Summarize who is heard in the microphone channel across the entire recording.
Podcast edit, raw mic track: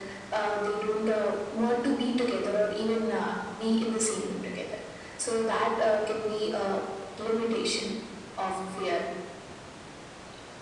echo only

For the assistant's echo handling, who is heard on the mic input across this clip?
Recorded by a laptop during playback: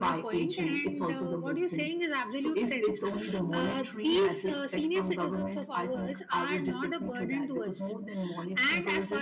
echo only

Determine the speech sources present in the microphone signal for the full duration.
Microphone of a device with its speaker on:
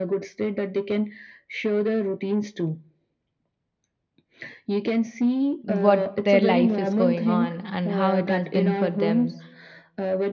both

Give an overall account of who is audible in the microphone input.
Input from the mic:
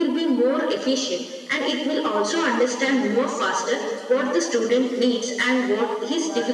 both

